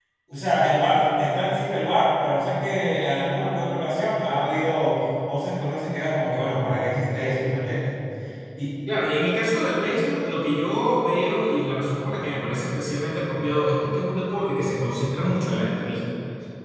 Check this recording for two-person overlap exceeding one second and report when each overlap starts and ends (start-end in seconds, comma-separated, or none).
none